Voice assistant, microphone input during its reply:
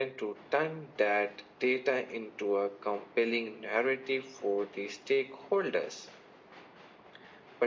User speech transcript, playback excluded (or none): none